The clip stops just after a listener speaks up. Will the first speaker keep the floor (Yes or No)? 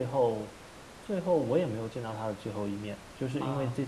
Yes